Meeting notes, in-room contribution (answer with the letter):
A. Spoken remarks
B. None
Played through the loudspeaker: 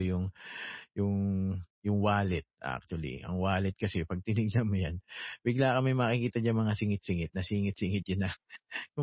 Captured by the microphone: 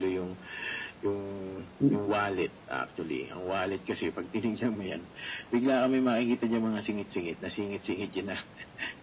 A